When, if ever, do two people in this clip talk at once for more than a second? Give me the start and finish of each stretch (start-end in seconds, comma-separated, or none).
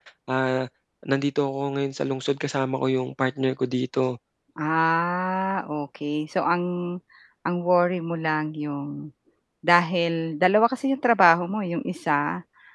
none